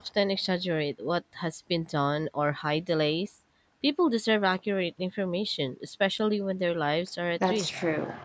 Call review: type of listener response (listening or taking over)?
taking over